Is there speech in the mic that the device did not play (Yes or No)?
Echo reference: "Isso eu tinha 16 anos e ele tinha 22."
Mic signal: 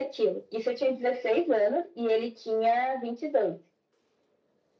No